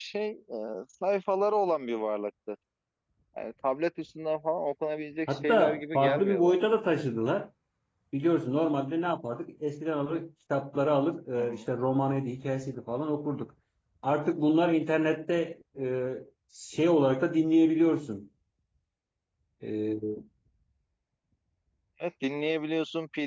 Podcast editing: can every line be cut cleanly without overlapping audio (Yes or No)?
No